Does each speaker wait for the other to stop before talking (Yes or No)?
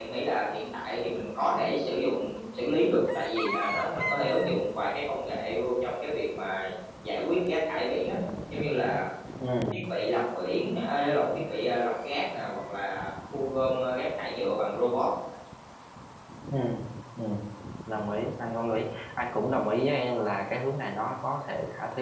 Yes